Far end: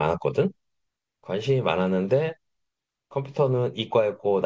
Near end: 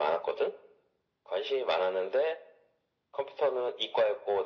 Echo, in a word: present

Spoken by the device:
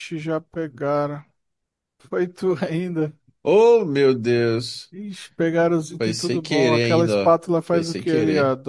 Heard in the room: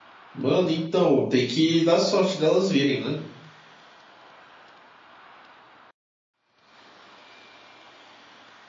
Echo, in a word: none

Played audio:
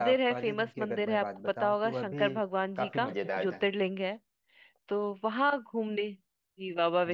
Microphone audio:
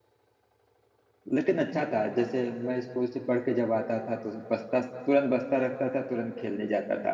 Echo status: none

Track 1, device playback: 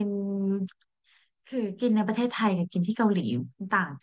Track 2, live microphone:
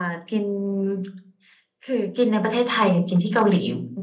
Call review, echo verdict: present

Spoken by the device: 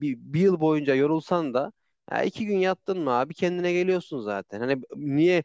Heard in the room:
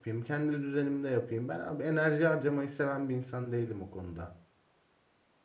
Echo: none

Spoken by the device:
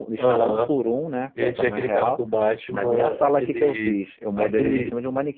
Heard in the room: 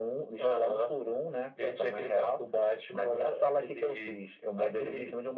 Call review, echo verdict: present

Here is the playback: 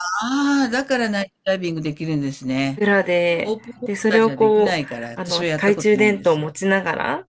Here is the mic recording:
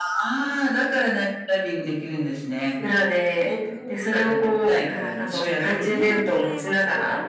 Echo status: present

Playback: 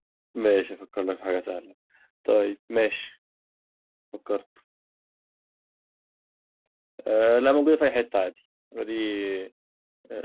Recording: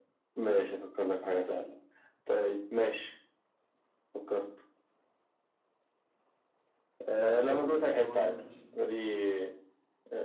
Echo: present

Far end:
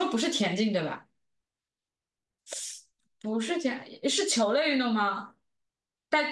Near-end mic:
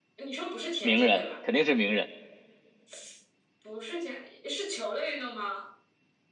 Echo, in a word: present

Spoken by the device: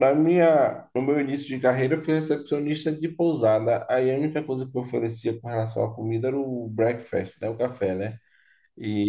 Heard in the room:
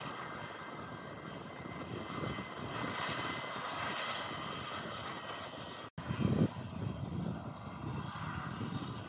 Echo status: none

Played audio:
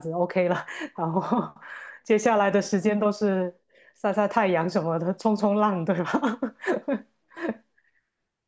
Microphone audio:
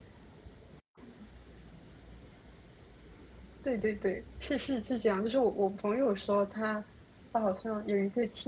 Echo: none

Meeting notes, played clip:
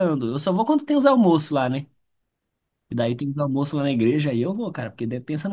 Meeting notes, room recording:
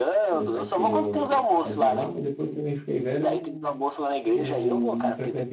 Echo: present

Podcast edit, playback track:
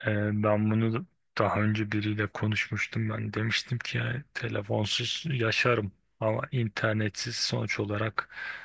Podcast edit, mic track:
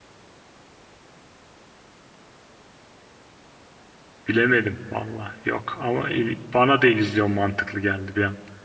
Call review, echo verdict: none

